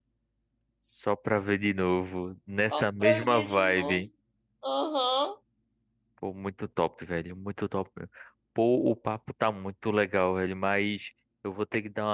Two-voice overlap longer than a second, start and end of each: 2.7-4.1

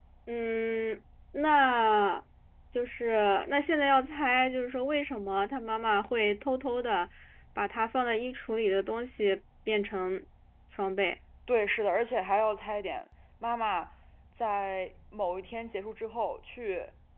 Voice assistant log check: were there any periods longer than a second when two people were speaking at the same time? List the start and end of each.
none

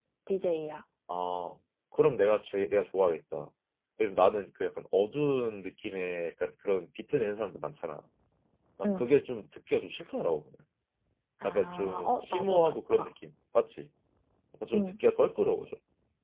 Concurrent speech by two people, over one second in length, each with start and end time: 11.4-13.1

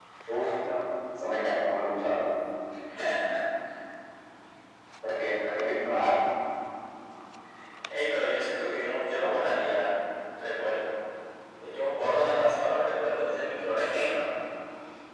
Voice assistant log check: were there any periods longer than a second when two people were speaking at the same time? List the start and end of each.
none

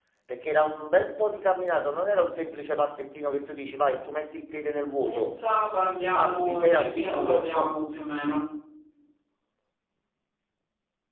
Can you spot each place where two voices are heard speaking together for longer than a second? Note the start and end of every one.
6.1-7.7

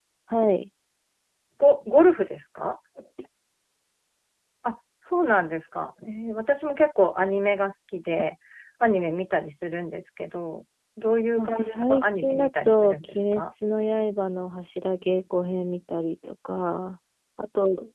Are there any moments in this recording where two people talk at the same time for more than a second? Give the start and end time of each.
11.4-13.4

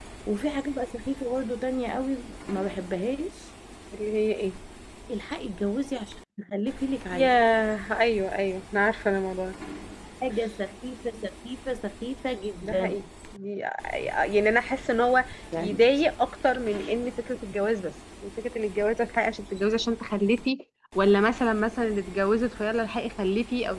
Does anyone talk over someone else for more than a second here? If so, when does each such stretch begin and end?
none

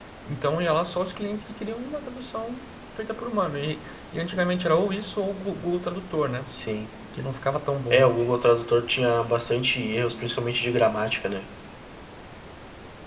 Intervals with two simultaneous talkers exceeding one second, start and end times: none

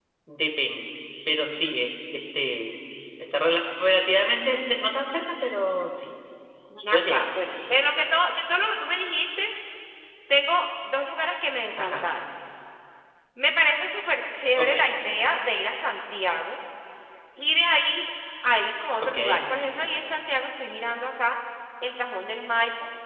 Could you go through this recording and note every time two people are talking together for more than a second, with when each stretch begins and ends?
none

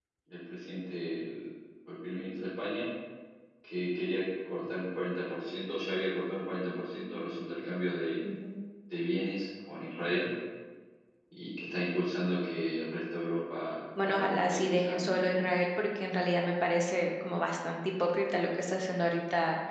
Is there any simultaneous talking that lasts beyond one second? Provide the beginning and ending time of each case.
14.0-15.2

